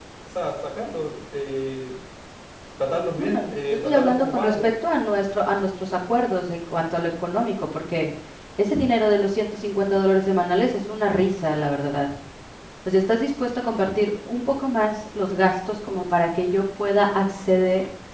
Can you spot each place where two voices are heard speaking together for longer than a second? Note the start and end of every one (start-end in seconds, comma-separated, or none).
3.2-4.7